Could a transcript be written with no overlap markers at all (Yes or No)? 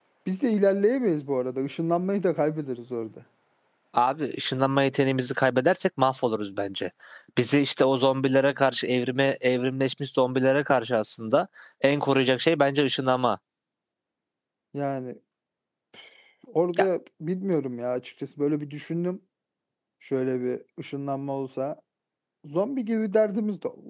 Yes